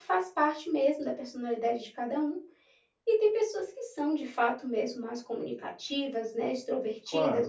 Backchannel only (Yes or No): Yes